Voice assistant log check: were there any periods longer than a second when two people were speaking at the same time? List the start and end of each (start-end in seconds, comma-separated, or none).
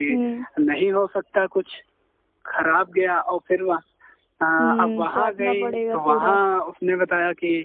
4.8-6.3